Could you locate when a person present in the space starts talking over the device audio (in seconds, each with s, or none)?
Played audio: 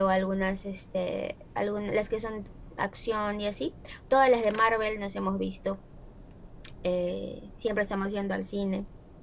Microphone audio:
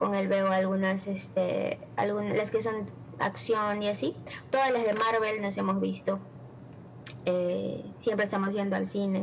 none